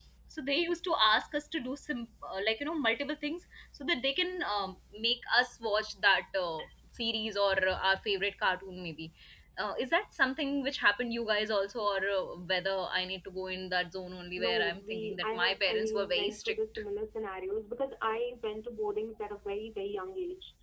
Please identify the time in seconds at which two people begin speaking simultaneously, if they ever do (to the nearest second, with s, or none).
14 s